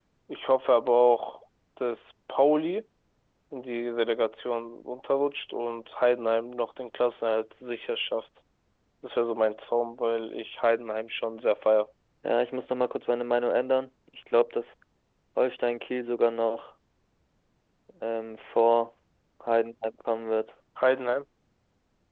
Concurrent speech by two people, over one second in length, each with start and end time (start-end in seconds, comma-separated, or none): none